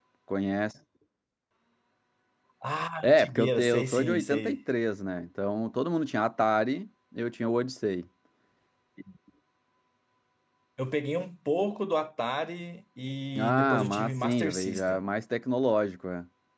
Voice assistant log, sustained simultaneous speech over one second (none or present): present